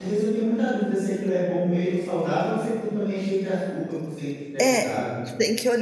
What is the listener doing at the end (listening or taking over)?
taking over